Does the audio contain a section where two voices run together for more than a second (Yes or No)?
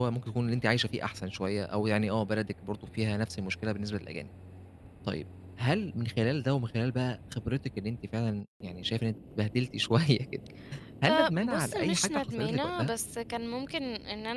Yes